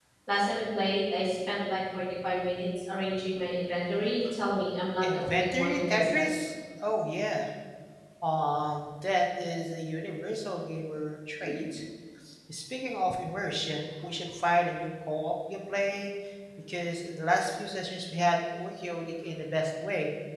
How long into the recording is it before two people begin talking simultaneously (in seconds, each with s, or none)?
5.0 s